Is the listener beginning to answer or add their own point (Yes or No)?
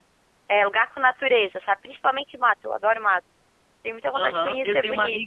Yes